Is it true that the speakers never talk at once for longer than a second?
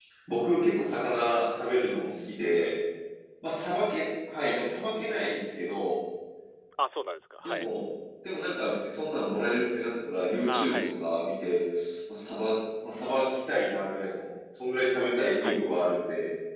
Yes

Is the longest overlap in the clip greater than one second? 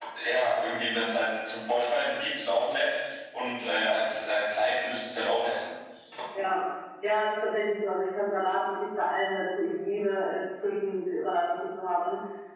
No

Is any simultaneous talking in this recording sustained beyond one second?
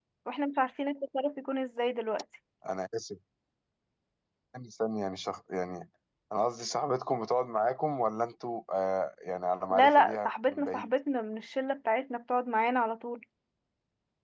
Yes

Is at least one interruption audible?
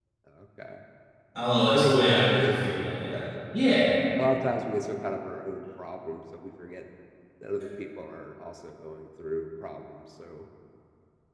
Yes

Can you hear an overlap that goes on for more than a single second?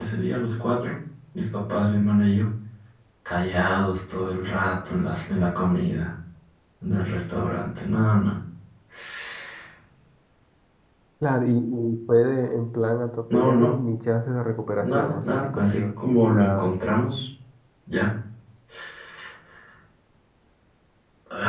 Yes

